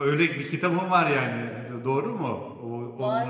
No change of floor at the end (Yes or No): No